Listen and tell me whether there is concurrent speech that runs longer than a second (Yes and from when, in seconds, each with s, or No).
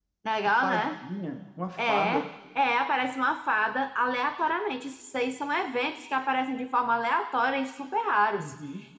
No